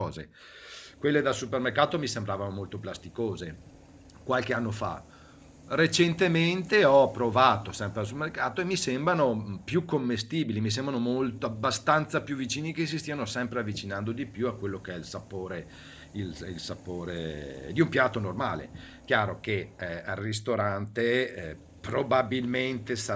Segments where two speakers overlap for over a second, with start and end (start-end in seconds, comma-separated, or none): none